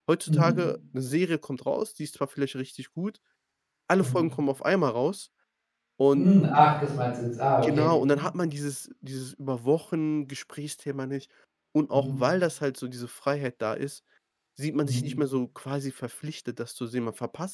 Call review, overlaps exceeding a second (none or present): none